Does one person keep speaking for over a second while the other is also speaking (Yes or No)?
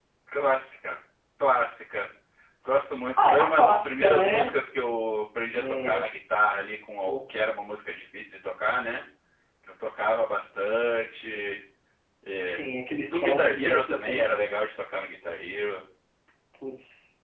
Yes